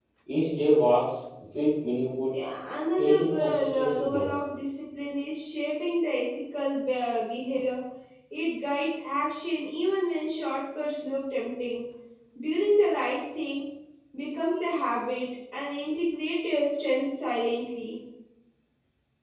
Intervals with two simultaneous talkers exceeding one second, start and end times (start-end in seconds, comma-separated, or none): 3.0-4.3